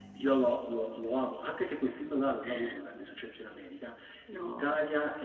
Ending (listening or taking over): listening